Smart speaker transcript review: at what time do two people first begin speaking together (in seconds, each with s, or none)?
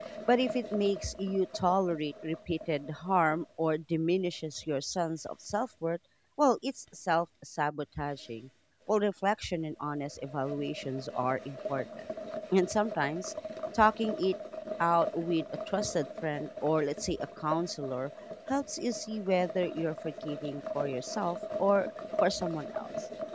none